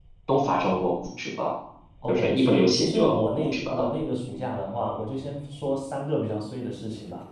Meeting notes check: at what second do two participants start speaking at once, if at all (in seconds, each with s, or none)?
2.1 s